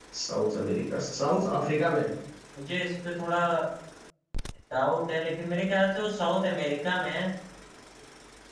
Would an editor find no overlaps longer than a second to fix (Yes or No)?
Yes